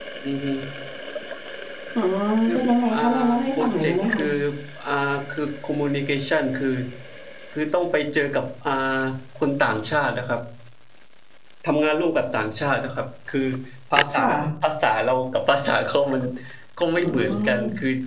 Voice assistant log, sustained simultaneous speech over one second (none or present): present